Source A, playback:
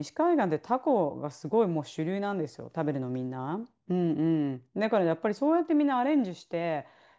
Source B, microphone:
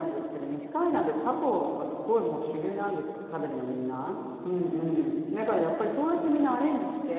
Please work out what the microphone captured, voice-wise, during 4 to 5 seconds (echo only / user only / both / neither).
echo only